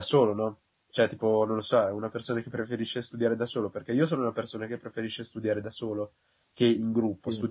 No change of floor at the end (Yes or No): Yes